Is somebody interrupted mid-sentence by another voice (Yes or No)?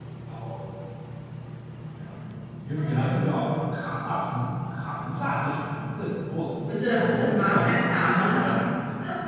Yes